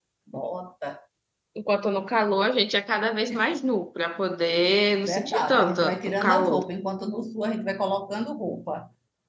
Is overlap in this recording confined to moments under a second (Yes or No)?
No